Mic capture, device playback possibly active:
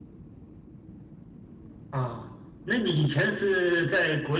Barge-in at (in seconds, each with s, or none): none